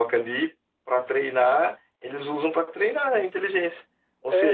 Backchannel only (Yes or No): No